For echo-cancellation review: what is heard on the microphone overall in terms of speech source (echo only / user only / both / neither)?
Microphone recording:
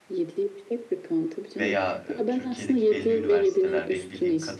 both